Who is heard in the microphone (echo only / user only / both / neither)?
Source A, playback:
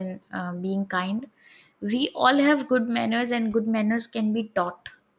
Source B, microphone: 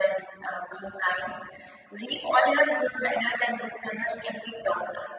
echo only